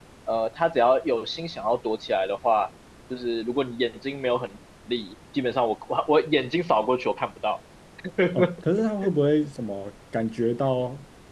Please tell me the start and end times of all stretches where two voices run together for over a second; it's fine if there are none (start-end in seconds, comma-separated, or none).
none